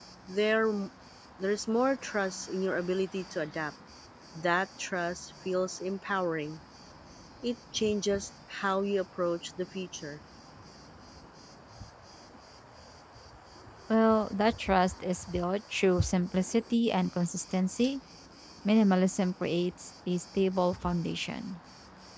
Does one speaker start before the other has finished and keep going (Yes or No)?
No